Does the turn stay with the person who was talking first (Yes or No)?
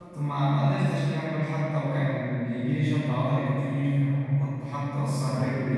Yes